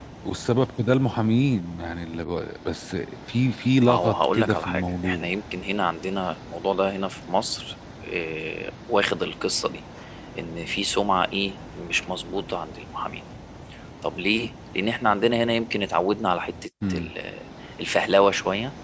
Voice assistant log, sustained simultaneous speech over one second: present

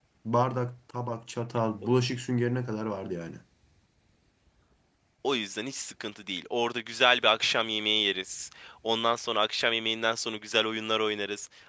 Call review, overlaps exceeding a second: none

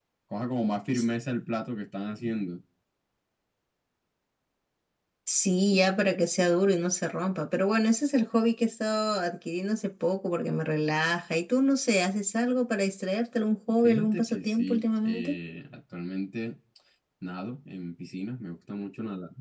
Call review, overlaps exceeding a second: present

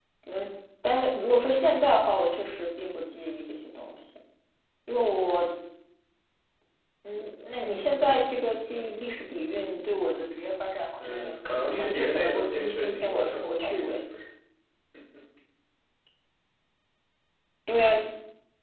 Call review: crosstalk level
present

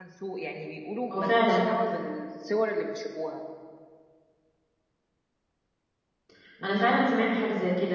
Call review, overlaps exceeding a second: none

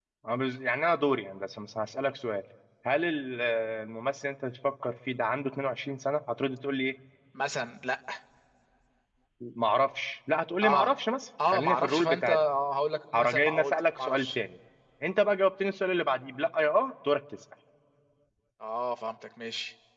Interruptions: present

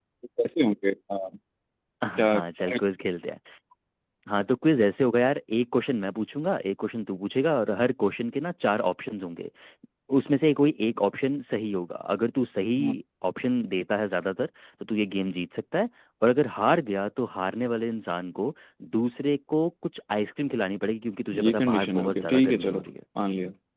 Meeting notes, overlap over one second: present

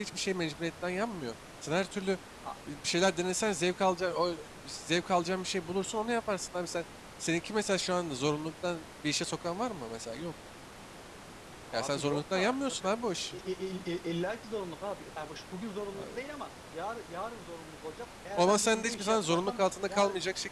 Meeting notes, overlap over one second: present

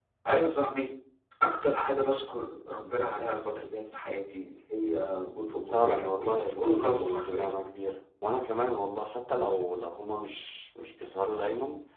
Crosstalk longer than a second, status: present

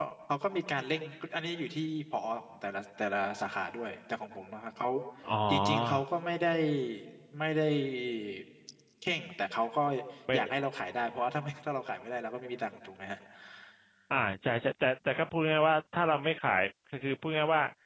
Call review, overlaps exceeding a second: none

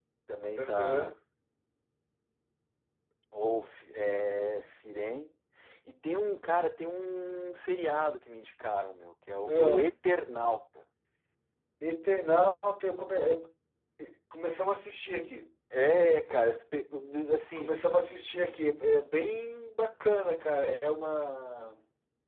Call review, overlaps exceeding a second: none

